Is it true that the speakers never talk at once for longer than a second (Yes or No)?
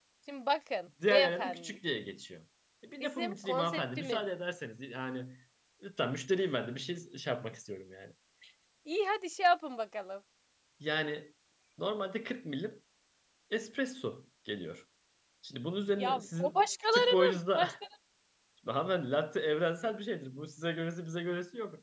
No